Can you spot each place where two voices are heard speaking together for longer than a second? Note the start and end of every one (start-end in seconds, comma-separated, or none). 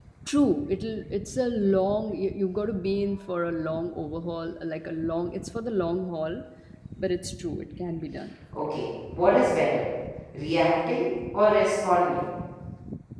none